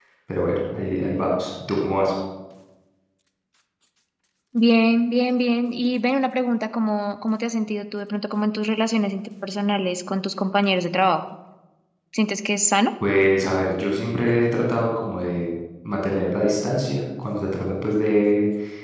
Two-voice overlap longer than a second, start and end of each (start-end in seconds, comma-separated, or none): none